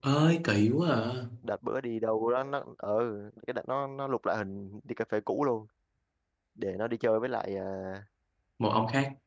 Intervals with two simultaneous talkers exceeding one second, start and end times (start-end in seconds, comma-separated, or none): none